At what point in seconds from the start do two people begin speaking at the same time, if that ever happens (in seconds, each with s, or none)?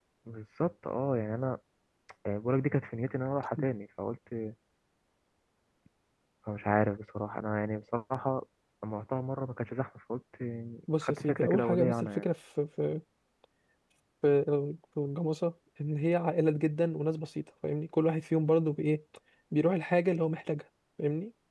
11.0 s